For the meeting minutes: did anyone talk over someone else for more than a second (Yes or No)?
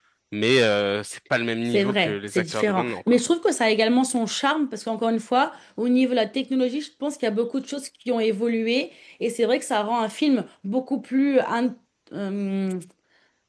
Yes